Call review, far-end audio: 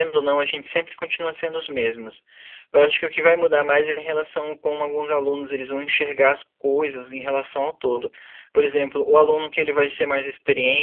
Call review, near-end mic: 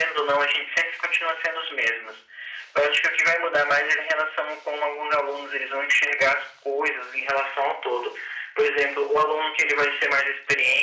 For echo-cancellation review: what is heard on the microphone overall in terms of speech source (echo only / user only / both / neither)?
echo only